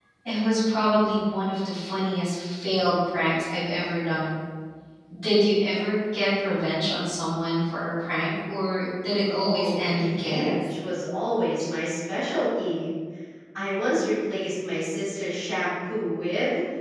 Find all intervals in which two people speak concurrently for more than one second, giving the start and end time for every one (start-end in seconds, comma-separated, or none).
9.3-10.6